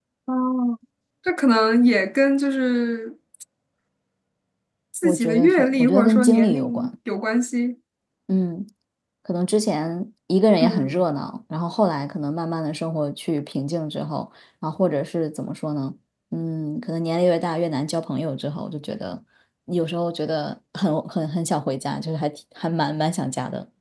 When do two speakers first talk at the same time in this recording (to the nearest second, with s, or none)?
5 s